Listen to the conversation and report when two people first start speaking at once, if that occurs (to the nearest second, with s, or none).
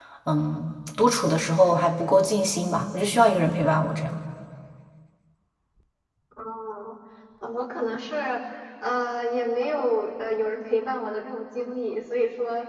none